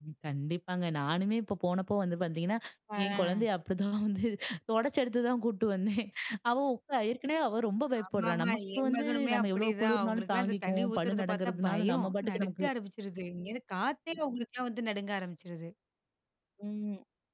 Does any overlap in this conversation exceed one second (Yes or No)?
Yes